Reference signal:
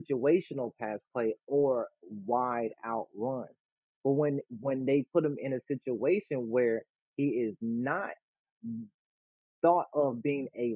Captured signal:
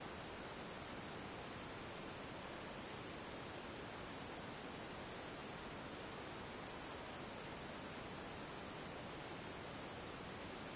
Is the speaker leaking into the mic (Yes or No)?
No